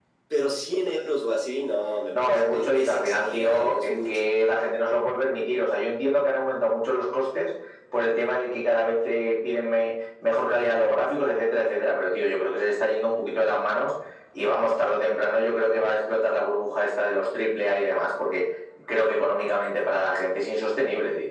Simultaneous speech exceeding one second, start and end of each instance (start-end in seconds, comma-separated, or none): 2.1-4.3